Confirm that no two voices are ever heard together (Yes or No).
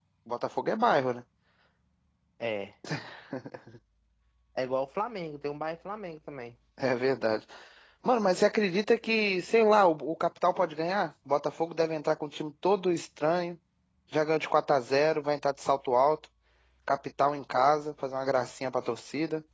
Yes